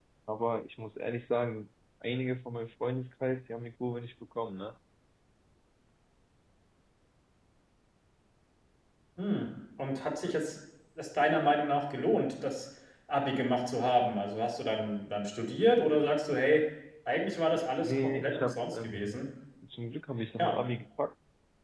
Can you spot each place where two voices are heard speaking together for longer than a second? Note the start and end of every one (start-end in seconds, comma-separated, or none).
17.8-19.2